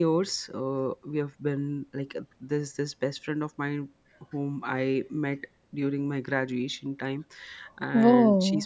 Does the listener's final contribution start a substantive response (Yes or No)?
No